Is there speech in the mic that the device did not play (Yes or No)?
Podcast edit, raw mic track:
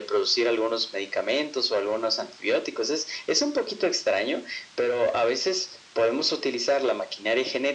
No